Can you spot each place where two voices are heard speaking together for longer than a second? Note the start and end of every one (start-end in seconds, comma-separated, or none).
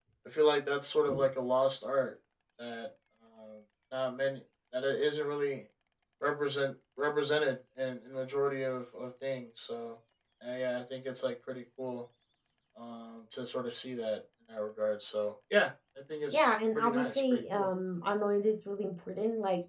16.3-17.7